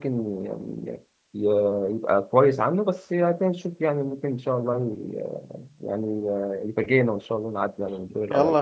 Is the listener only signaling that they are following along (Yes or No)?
No